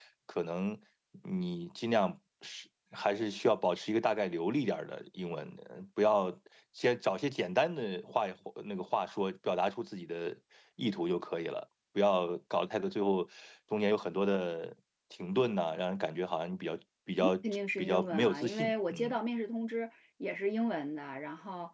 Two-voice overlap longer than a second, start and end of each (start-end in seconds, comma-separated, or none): 17.8-19.2